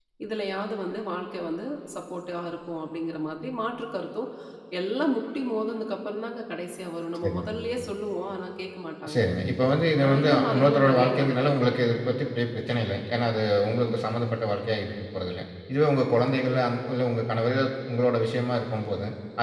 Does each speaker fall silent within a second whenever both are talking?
No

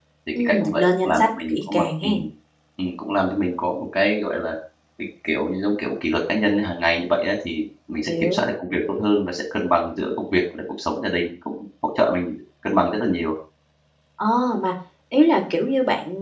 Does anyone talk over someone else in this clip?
Yes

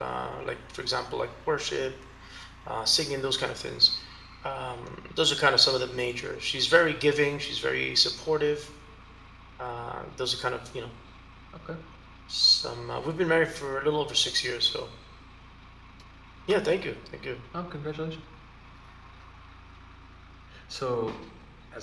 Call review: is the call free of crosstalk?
Yes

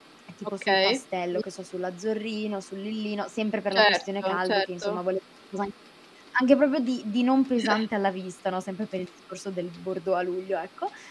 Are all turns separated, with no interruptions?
No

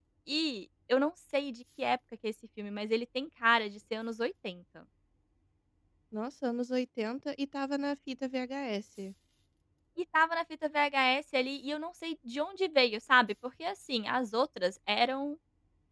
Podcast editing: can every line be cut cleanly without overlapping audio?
Yes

